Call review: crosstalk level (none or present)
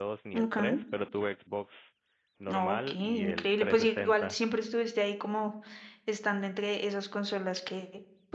present